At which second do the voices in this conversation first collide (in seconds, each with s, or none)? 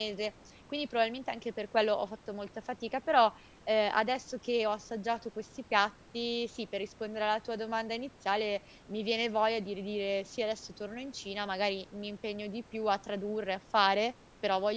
none